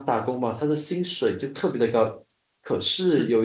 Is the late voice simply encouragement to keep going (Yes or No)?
Yes